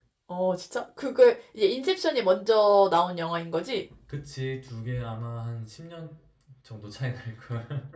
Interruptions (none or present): none